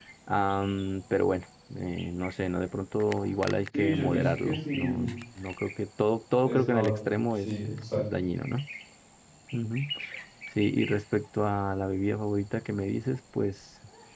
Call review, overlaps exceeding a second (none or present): present